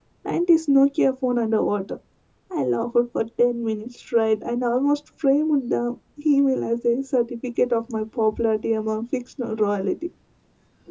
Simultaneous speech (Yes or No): No